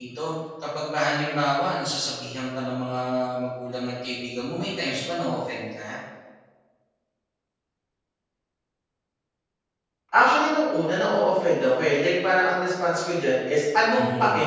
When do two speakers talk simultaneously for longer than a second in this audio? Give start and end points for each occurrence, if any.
none

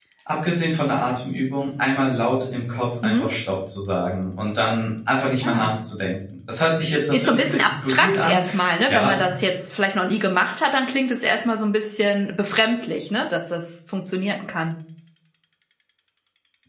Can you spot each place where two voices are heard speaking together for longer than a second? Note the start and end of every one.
7.1-8.4

